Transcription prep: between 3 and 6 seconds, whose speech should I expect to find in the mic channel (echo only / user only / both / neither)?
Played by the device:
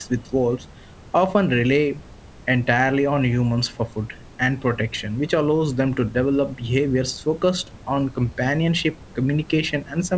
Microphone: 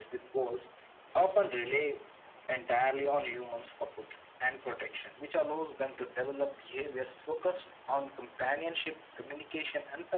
echo only